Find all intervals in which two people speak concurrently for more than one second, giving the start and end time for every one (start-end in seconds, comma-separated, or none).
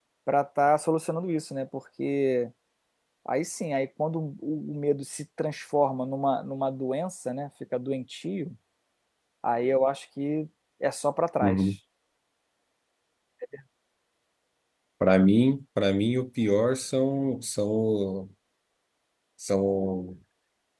none